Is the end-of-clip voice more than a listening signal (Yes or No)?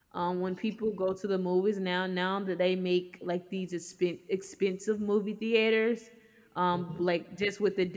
No